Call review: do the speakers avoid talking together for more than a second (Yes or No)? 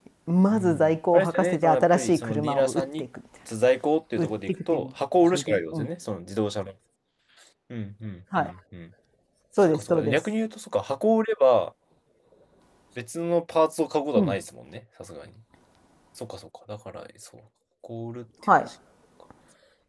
No